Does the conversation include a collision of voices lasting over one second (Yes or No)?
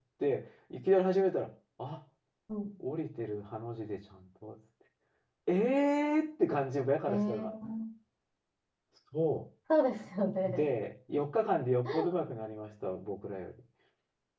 No